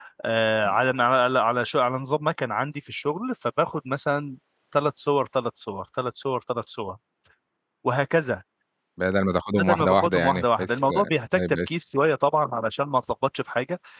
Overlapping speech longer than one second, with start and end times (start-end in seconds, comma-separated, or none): 9.6-10.8